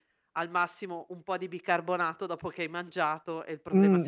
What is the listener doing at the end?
taking over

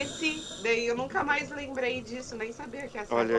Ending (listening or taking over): taking over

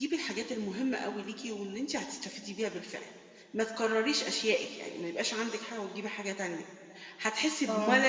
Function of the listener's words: listening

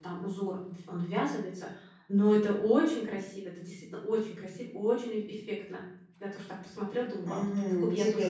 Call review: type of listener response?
taking over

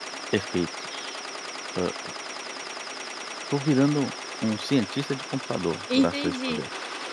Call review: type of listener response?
taking over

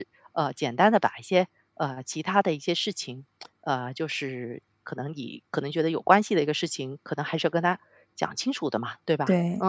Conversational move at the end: taking over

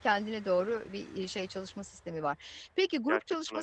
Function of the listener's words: listening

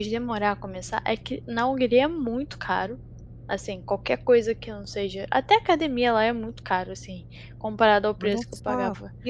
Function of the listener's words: taking over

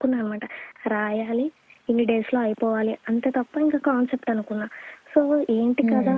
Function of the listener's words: listening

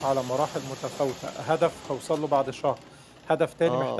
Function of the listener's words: listening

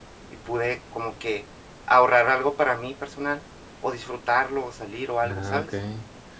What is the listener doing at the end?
taking over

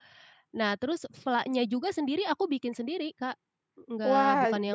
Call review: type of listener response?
taking over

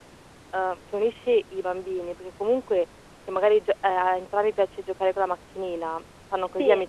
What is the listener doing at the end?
listening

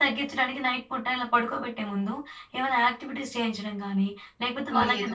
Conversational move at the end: listening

